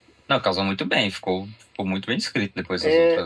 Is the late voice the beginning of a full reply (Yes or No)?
Yes